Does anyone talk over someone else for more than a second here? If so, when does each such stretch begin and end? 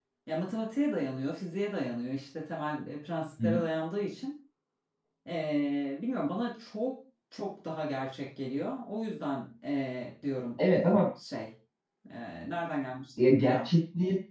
none

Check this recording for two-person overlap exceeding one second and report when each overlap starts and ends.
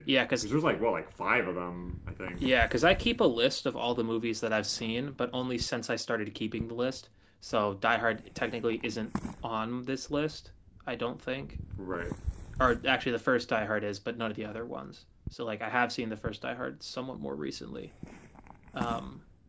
none

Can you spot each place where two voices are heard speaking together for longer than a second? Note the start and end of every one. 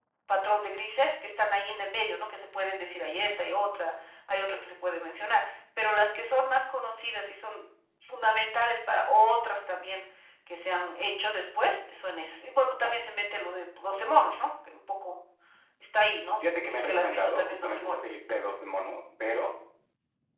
16.4-18.0

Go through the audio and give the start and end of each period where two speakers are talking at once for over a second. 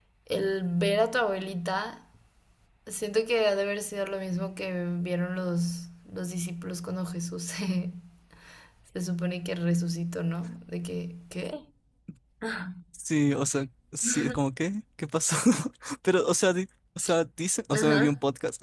none

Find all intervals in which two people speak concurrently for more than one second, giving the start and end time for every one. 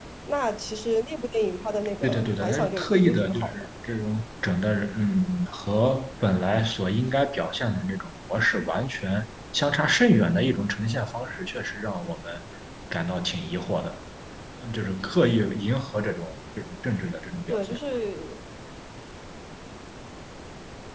2.0-3.6

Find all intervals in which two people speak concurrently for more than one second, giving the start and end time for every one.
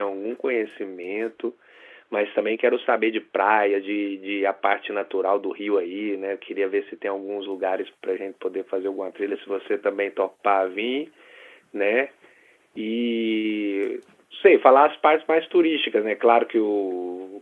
none

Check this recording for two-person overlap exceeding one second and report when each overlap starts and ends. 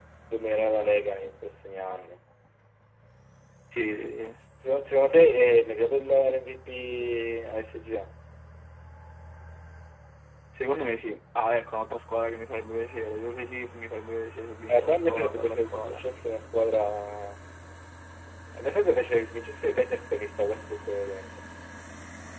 14.7-16.0

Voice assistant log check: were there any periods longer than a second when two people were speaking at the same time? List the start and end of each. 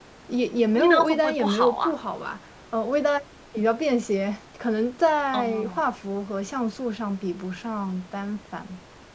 0.7-1.9

